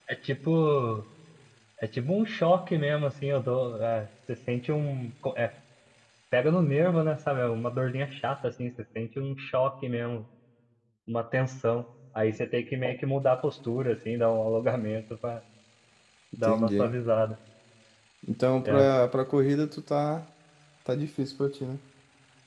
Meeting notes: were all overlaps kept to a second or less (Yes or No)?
Yes